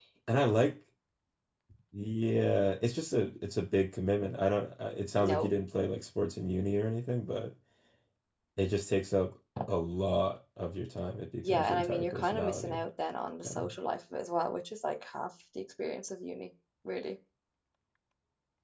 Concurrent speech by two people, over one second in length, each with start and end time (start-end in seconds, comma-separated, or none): 11.5-12.8